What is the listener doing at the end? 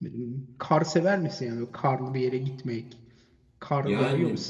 taking over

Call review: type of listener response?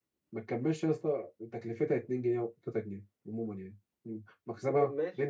taking over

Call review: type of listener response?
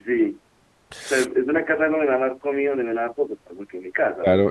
taking over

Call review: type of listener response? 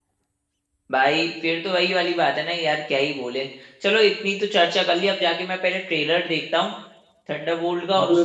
taking over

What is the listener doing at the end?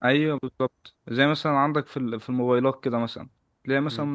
listening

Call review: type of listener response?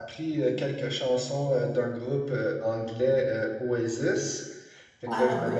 listening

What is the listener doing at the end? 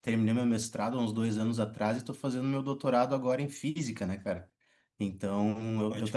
listening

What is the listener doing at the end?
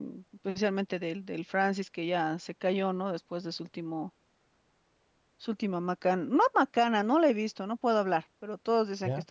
listening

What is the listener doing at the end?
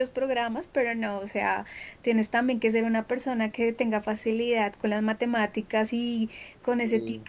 listening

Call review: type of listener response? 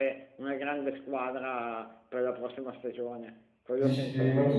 taking over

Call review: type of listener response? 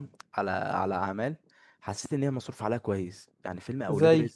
listening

